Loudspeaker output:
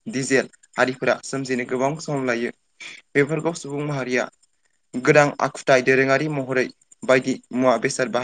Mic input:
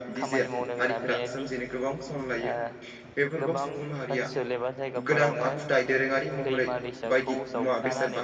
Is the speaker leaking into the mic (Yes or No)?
Yes